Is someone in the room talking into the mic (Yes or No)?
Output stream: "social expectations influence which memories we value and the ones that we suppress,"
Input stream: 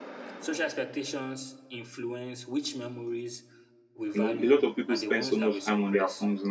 Yes